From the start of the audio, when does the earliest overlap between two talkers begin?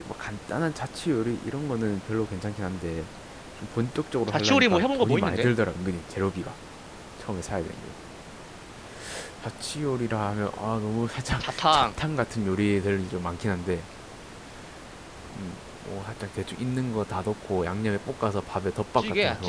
4.3 s

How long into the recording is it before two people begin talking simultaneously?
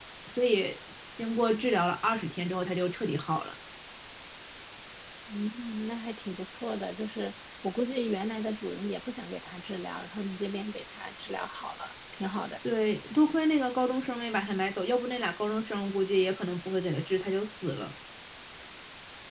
none

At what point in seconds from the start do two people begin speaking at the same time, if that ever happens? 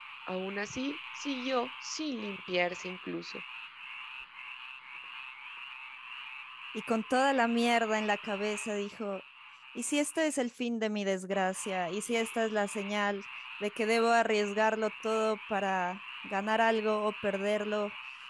none

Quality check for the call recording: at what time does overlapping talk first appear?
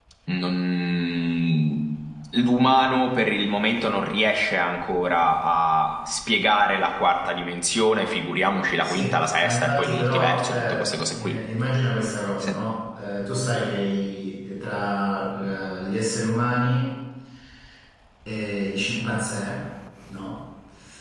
8.8 s

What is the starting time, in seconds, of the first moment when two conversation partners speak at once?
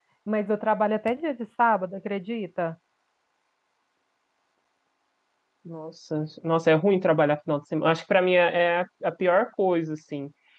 none

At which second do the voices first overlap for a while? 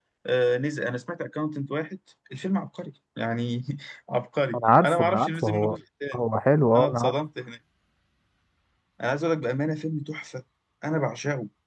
4.5 s

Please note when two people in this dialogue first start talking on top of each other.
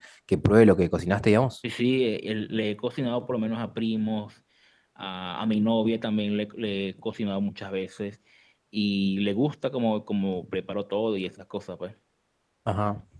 none

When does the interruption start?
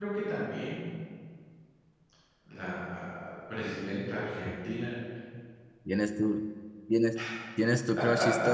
none

